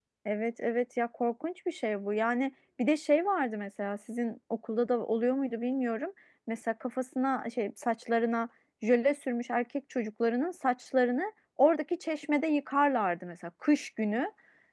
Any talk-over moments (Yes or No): No